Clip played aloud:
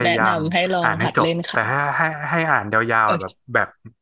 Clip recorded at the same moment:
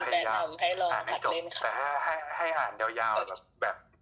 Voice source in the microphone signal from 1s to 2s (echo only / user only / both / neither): echo only